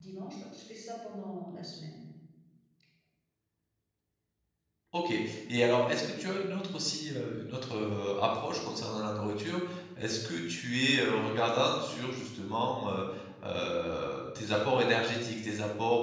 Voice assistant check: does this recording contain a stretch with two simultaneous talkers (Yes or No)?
No